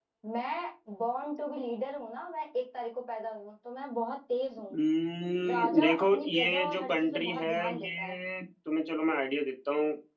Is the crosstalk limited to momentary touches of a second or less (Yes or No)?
No